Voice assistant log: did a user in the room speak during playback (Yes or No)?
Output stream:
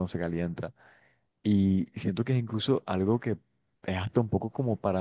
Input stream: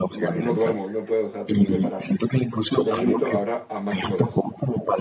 Yes